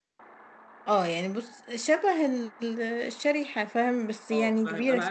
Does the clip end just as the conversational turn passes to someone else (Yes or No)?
Yes